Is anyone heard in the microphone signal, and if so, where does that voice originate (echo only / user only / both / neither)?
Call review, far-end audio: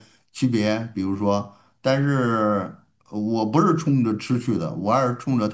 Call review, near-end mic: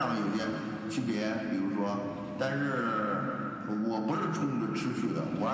echo only